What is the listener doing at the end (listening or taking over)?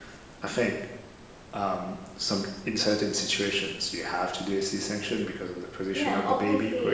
taking over